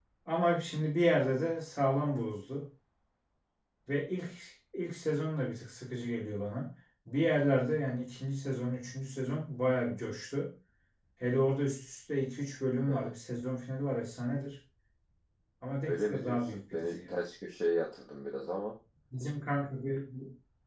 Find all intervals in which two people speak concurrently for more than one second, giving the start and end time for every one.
15.9-17.1

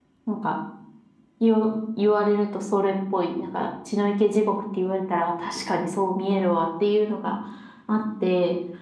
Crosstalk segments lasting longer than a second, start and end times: none

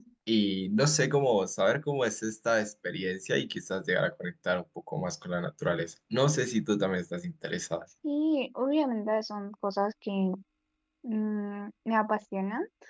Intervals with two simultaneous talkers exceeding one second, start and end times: none

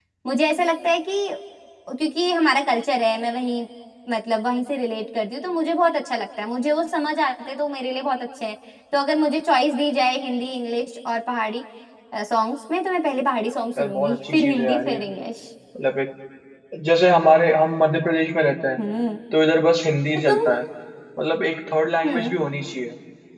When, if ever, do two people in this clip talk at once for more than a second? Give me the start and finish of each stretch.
13.8-15.0

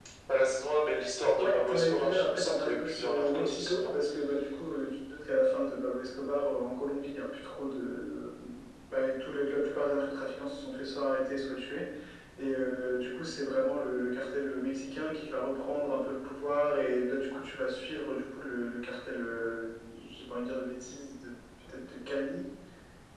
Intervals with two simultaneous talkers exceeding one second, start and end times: 1.4-3.9

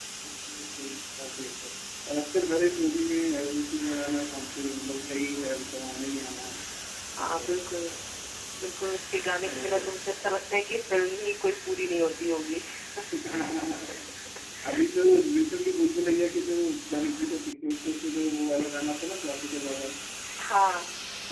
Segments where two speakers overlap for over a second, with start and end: none

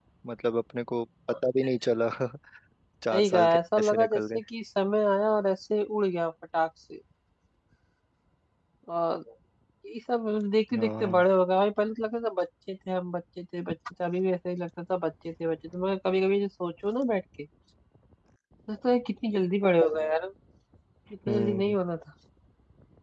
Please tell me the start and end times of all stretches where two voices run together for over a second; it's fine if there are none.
3.1-4.4

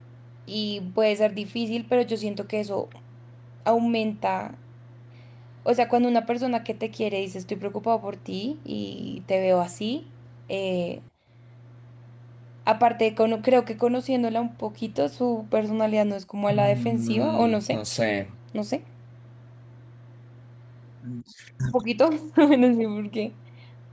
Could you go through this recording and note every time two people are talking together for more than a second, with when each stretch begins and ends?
16.5-17.8

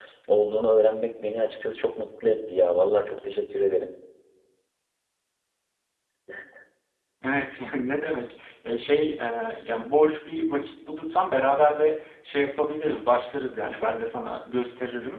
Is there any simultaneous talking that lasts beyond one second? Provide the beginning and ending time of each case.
none

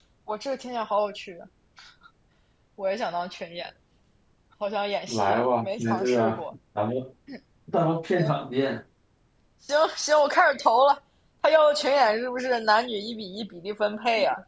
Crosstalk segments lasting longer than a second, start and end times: 5.1-6.5

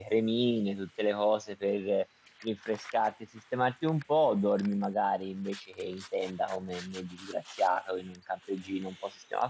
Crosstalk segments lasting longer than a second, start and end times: none

